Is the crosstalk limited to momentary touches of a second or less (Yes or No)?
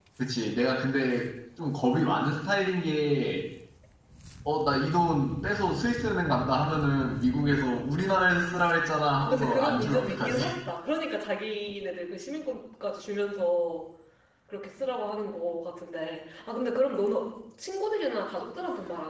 No